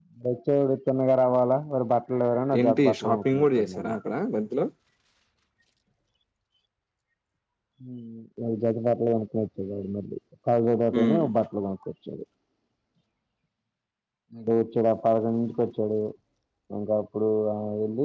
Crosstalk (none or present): present